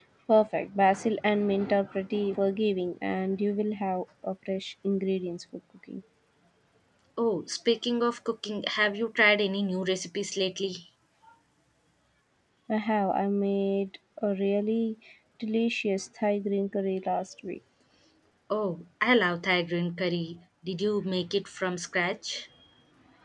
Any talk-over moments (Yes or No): No